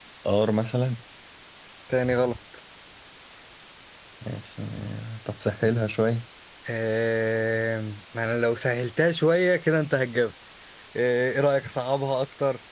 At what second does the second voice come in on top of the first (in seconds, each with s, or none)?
none